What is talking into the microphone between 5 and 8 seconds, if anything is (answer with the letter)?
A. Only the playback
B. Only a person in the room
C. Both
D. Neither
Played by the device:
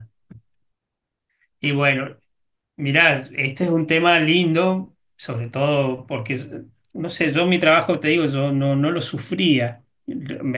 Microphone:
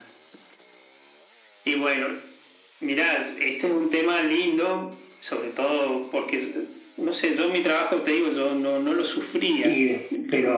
A